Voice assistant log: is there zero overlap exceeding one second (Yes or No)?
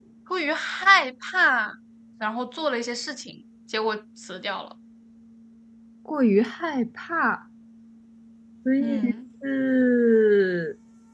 Yes